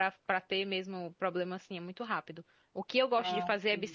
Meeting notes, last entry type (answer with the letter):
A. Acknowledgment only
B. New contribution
A